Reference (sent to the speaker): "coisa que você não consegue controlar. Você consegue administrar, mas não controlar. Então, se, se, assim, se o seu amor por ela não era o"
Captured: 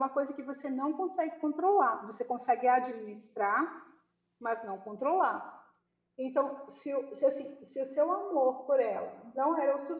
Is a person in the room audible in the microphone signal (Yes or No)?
No